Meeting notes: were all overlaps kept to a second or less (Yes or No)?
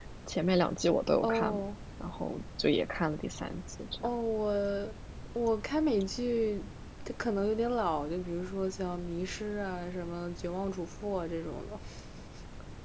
Yes